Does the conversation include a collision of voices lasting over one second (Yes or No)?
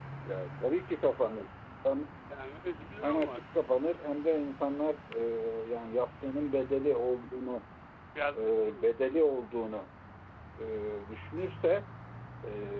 No